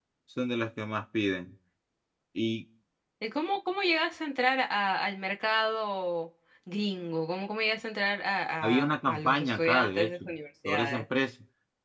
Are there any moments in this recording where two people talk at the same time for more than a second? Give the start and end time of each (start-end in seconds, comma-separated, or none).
8.6-10.1